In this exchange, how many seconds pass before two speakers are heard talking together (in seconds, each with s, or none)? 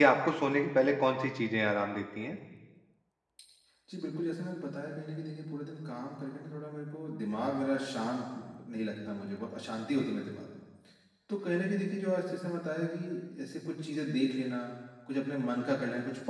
none